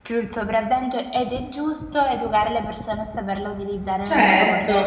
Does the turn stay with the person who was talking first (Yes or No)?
No